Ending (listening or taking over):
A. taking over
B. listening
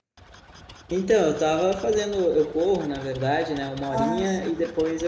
B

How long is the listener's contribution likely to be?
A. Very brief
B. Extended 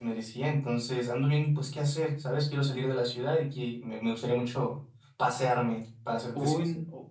B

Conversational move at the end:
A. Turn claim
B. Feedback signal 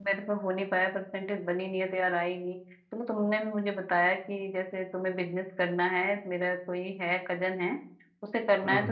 B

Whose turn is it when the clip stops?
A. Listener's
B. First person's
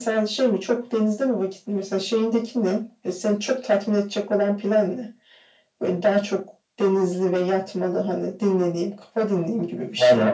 A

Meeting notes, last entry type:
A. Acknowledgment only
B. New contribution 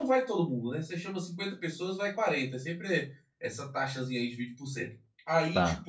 A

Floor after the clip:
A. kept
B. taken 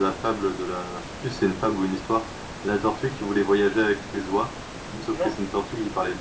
A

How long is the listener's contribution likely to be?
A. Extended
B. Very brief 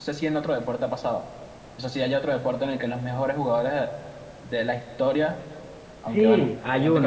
A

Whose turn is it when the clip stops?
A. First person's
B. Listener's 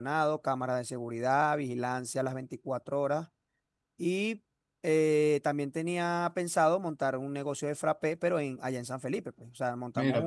B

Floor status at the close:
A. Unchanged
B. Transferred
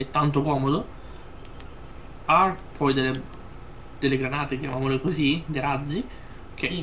B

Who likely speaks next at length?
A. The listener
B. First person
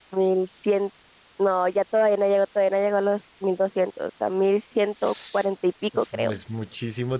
A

